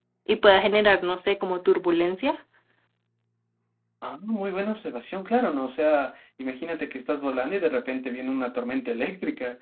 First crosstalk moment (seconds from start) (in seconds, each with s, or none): none